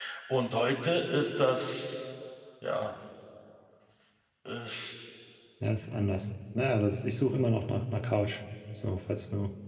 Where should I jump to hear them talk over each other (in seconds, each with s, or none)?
none